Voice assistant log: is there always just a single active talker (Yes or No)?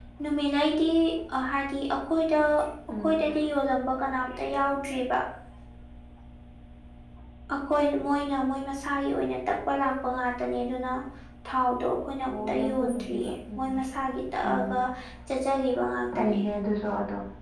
No